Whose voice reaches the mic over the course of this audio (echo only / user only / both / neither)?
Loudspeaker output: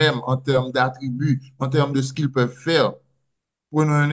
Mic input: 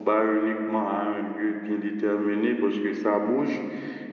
user only